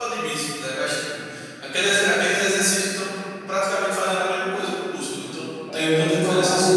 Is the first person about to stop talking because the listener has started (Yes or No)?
Yes